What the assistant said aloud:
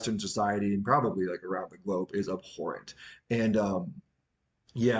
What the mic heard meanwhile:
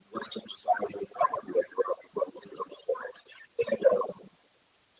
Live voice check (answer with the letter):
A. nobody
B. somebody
A